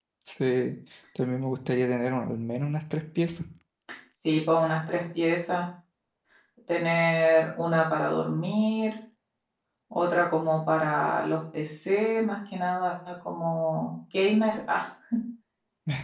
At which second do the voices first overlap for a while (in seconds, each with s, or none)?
none